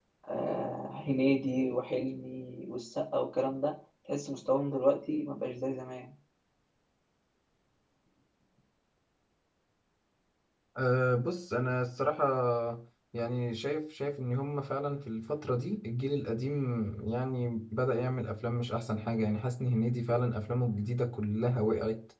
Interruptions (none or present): none